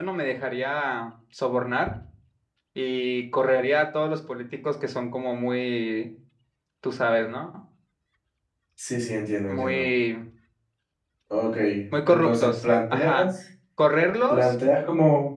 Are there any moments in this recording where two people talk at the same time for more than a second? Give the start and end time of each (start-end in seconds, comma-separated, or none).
12.0-13.3